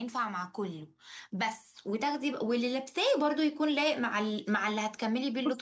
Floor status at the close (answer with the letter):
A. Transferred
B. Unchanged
A